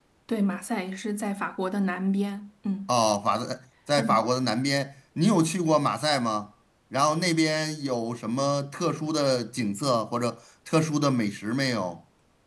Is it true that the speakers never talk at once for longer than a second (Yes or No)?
Yes